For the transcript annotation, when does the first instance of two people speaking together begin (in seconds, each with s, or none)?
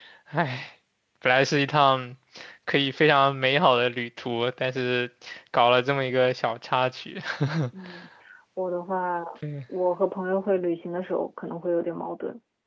none